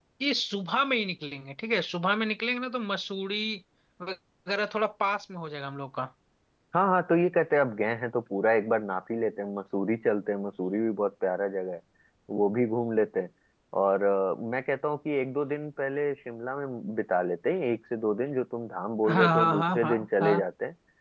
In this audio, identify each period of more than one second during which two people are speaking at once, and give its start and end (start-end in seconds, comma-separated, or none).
19.1-20.3